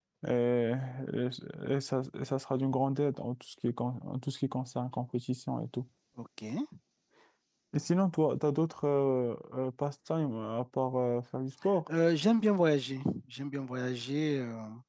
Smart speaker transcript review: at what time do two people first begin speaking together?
none

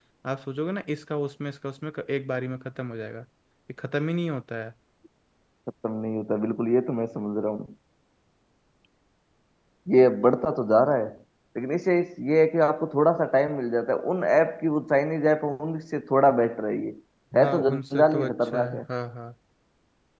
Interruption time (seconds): 17.4 s

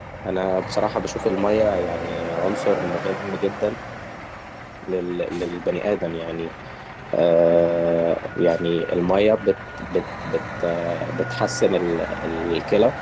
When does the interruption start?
none

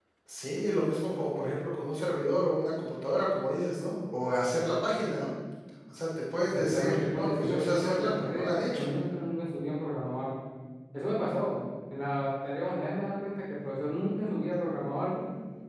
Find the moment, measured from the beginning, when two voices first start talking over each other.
6.5 s

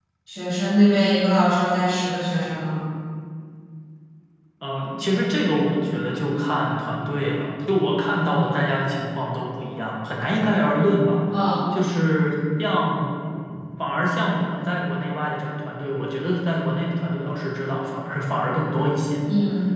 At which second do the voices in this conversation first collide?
none

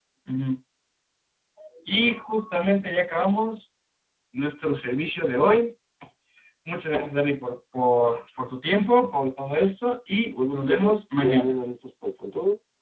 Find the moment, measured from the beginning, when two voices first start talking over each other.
10.3 s

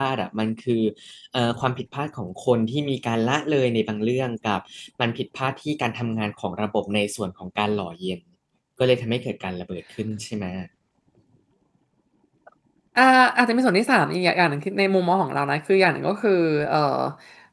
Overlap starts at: none

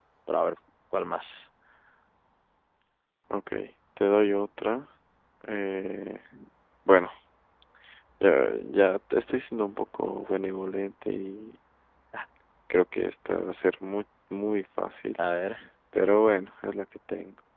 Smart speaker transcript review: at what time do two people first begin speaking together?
none

